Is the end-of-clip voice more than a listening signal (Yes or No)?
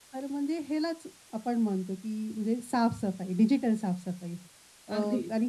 No